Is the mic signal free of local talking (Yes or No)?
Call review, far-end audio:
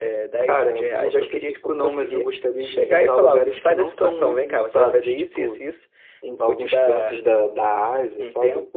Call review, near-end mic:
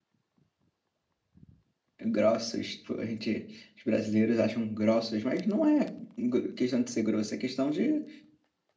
No